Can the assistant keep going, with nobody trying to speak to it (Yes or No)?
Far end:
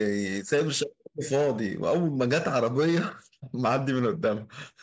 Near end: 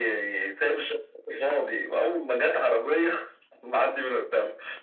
Yes